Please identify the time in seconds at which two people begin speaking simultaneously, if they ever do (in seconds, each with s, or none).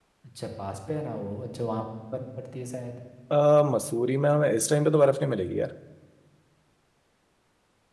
none